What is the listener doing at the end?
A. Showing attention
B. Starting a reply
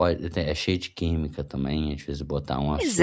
B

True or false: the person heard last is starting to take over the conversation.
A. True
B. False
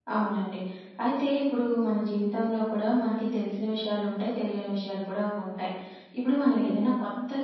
B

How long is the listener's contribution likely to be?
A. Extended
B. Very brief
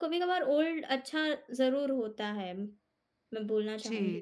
A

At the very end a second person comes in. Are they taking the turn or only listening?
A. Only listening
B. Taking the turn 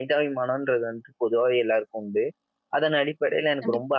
A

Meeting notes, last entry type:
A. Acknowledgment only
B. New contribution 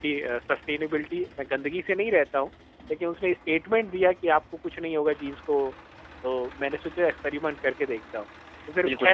B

